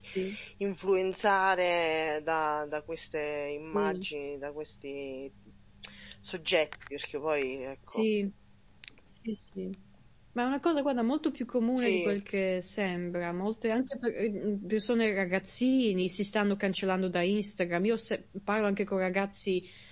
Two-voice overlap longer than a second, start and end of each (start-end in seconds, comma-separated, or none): none